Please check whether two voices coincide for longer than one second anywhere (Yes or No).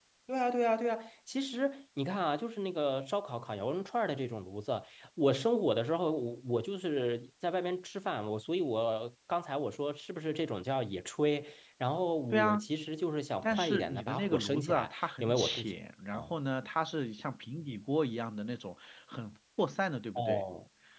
Yes